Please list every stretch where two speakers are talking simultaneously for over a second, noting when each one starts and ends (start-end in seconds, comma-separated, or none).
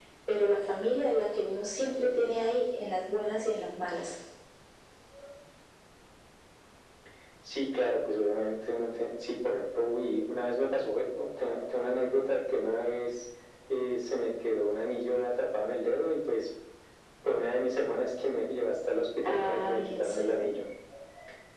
19.3-20.5